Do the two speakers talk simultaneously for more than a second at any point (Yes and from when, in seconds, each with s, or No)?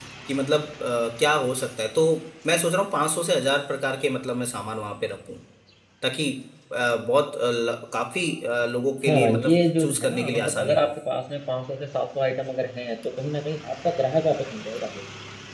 Yes, from 9.0 s